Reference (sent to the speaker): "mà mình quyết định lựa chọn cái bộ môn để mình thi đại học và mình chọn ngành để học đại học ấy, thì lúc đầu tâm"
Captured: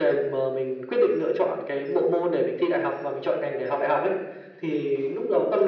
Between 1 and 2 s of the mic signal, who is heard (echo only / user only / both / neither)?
echo only